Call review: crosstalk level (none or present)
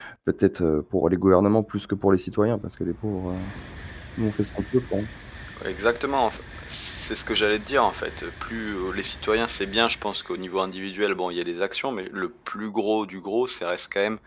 none